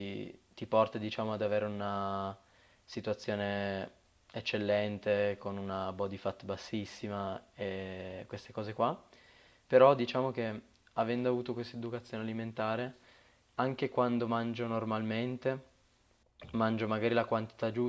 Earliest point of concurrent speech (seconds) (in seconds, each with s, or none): none